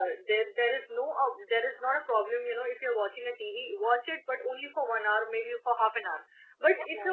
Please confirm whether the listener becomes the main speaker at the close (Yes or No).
No